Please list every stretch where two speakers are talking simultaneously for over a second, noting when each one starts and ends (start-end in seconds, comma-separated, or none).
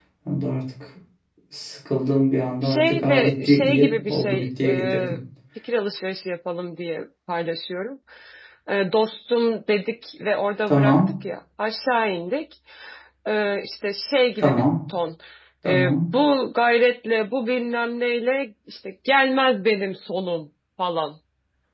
2.6-5.0